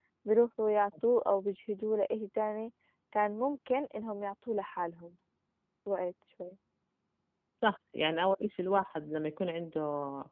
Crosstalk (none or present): none